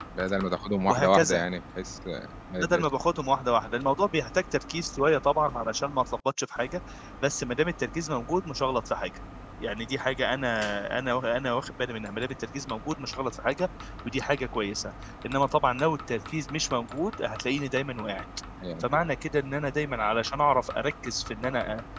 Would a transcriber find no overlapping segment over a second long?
Yes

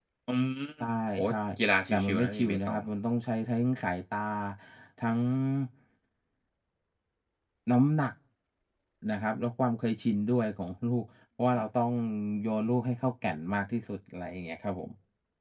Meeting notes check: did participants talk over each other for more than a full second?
Yes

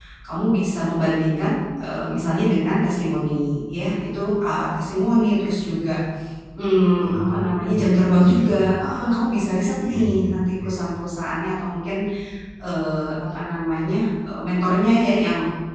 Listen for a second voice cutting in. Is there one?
Yes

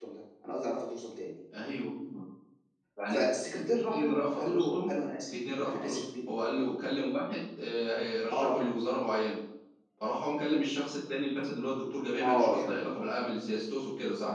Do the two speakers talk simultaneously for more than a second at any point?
Yes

